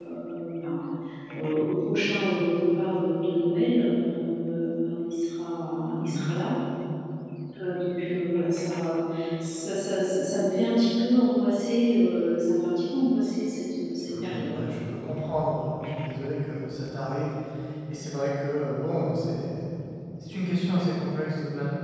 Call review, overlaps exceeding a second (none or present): none